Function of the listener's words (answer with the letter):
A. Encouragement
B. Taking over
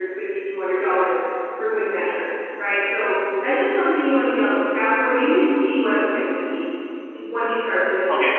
A